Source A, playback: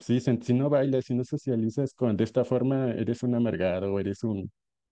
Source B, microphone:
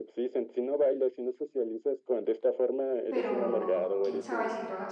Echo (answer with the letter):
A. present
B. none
A